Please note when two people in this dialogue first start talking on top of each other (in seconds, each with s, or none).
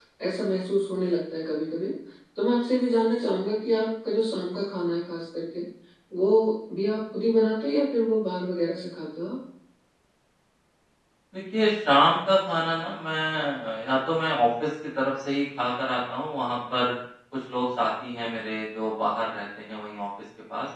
none